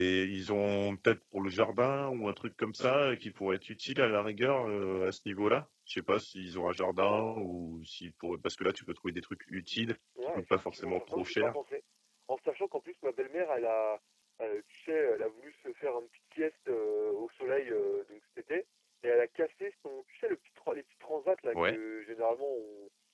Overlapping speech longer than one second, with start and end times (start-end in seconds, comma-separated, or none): 10.3-11.5